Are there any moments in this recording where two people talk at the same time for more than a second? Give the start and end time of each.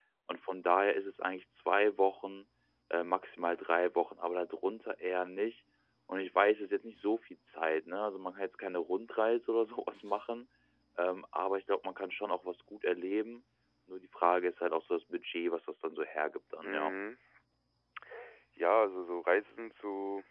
none

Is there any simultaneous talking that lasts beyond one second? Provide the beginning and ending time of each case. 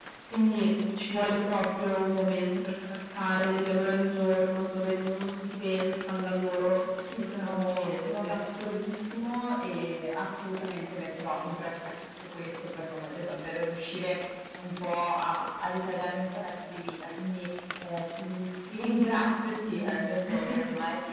7.2-8.4

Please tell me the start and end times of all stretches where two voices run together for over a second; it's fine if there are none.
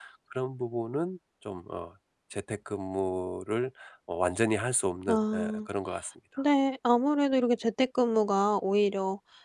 none

